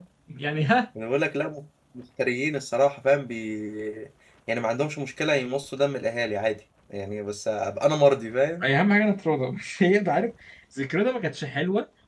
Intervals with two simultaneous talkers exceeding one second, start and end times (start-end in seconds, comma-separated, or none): none